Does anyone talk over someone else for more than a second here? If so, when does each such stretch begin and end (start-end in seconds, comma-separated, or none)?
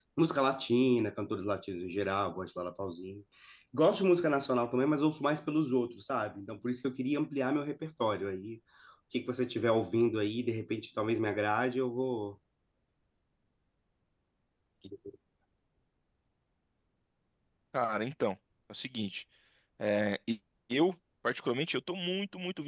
none